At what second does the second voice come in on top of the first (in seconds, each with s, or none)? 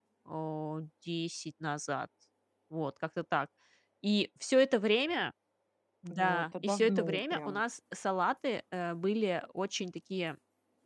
6.1 s